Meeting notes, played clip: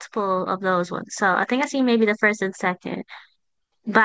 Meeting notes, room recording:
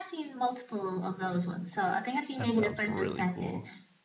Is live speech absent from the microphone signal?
No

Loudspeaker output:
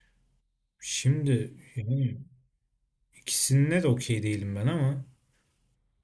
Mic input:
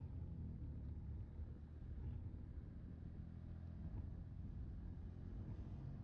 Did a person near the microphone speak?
No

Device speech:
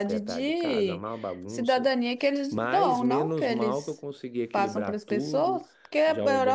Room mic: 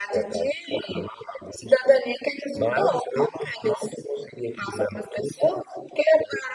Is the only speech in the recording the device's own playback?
Yes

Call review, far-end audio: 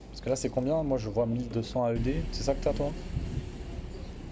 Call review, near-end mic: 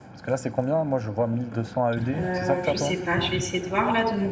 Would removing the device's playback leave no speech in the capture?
No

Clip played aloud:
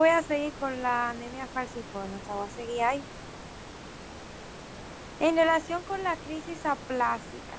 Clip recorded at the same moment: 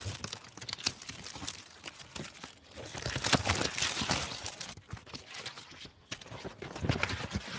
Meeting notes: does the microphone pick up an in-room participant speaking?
No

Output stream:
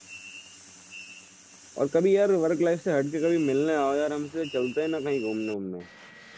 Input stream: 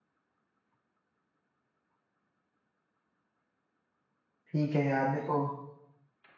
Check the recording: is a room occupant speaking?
Yes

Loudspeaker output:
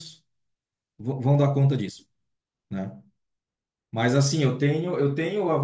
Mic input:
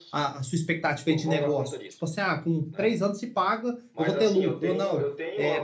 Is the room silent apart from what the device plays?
No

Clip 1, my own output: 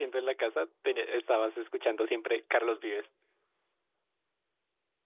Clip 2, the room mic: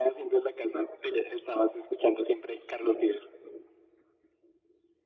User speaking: No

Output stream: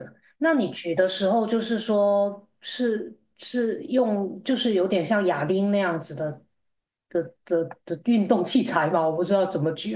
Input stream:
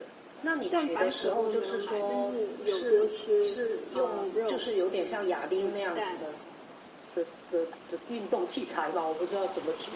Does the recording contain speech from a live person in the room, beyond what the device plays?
Yes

